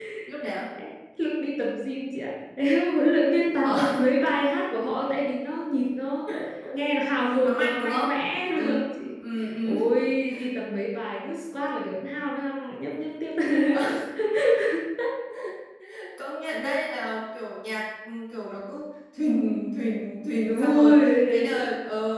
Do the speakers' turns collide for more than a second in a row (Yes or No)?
Yes